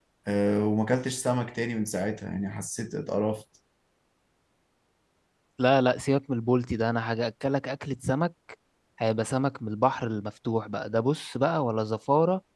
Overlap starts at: none

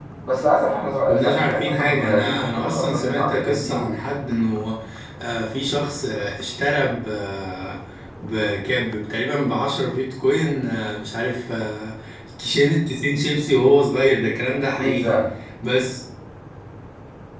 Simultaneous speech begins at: 1 s

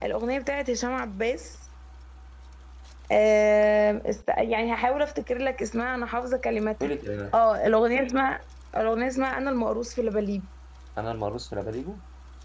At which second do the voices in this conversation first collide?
none

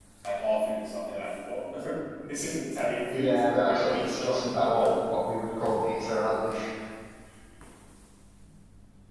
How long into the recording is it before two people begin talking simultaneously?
3 s

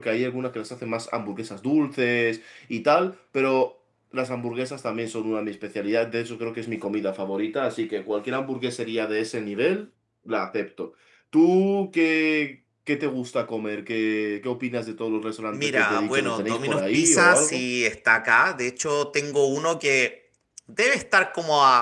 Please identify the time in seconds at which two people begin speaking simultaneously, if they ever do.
16 s

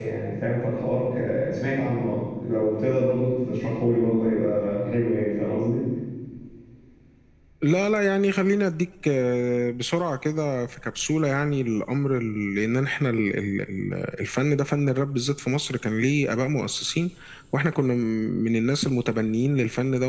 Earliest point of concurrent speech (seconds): none

